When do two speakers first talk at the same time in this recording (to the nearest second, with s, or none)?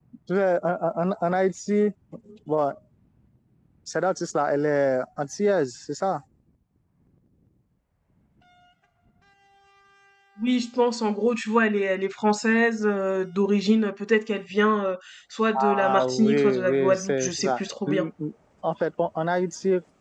16 s